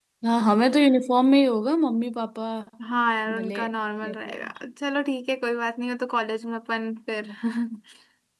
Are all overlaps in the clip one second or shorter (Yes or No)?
Yes